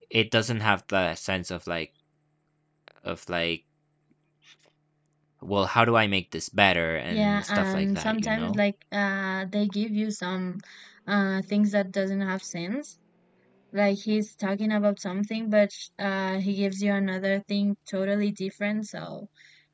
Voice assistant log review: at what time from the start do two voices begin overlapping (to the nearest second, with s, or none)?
7 s